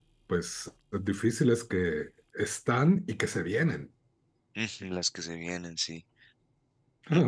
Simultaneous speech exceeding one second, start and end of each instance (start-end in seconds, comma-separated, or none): none